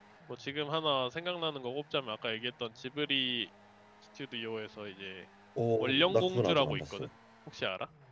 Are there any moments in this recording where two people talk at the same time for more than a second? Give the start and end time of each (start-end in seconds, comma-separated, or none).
5.8-7.1